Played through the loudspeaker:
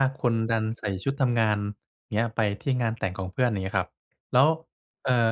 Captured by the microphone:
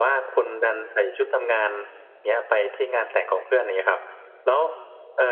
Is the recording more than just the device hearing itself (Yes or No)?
No